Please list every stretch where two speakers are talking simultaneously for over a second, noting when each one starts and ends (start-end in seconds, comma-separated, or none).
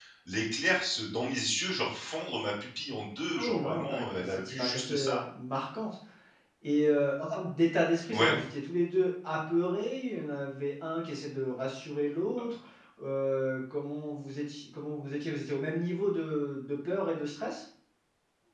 3.4-5.2